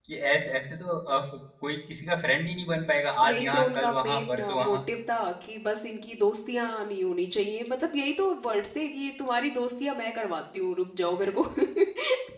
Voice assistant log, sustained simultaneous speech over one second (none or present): present